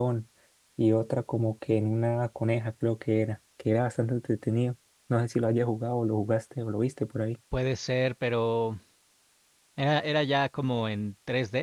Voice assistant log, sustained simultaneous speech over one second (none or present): none